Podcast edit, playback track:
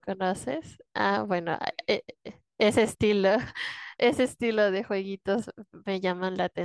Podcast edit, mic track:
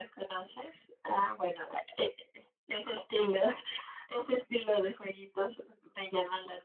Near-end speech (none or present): none